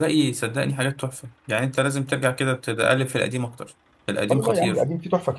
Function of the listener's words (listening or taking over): taking over